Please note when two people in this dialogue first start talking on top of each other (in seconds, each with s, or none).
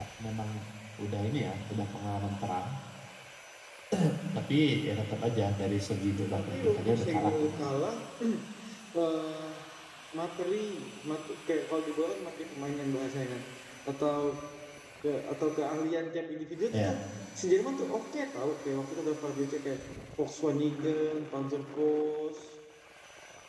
6.2 s